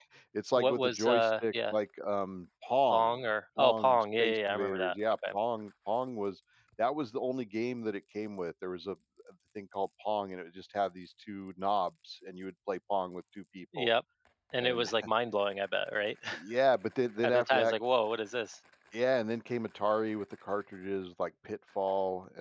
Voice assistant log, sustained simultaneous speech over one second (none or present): present